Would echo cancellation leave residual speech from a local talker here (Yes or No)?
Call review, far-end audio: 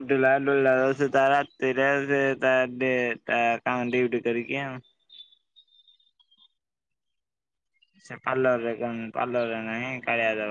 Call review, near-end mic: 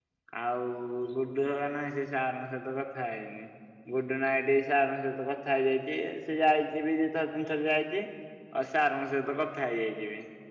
Yes